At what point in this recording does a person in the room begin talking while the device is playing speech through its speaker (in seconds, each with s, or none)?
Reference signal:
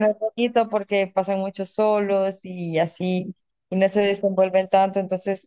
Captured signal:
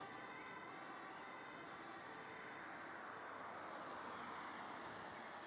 none